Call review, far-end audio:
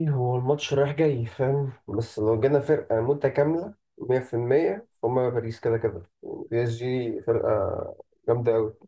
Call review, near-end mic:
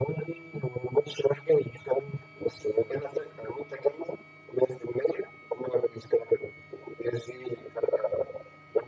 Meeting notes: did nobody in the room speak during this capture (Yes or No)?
Yes